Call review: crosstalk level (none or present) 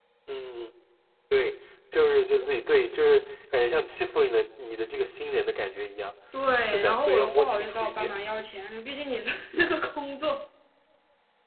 present